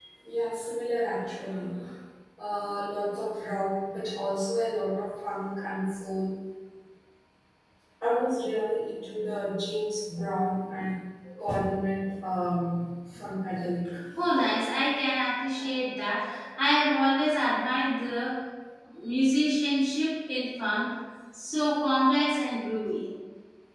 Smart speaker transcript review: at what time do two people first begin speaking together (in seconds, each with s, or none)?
none